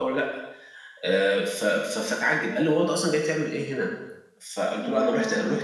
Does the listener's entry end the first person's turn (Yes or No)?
No